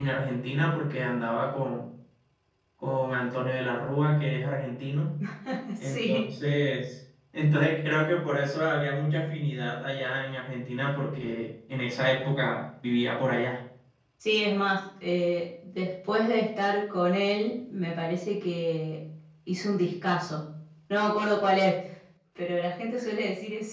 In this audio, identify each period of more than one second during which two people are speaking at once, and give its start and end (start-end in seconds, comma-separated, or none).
none